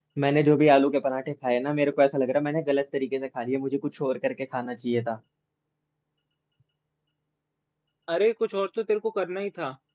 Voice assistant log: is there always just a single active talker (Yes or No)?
Yes